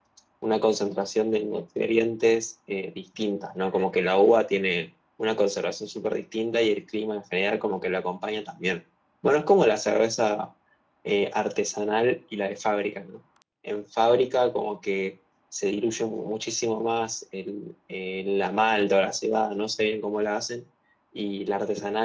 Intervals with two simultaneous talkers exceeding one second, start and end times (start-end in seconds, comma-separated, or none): none